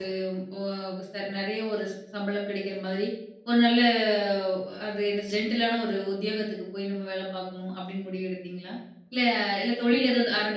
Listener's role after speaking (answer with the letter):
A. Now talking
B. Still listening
B